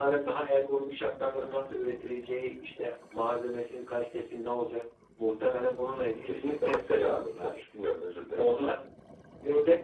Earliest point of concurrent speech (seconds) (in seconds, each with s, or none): 6.2 s